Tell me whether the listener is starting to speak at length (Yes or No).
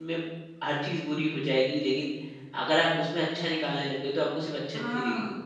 Yes